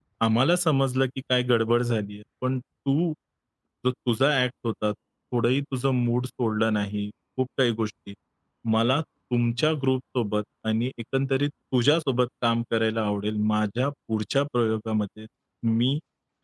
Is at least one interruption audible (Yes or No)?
No